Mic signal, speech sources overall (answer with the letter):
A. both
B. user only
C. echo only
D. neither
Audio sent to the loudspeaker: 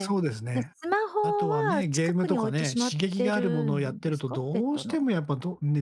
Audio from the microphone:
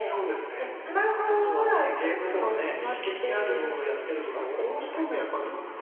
C